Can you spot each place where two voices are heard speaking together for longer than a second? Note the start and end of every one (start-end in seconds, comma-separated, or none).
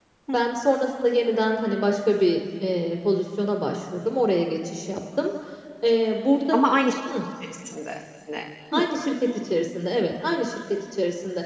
none